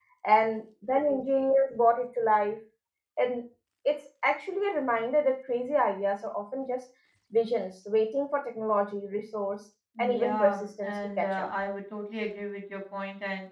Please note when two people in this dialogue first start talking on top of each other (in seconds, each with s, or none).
10.0 s